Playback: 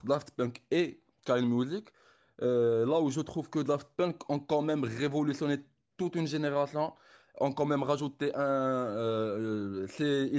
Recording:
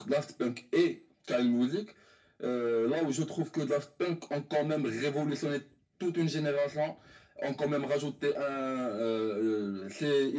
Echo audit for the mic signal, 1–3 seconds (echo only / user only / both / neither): echo only